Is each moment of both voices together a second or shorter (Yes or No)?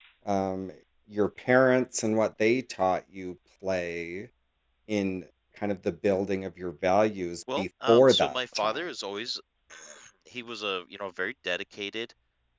No